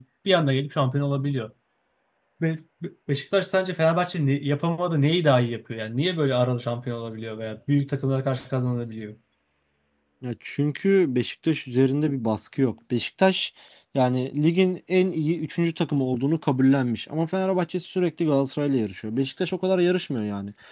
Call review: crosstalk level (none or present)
none